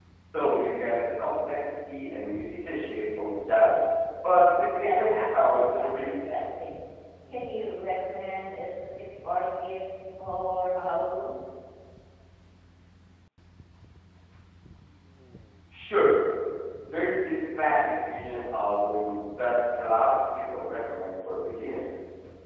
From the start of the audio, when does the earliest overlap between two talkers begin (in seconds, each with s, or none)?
4.6 s